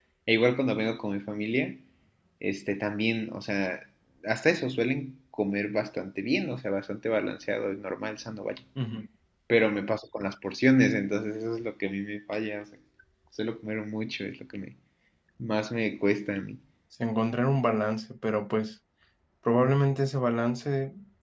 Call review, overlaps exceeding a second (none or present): none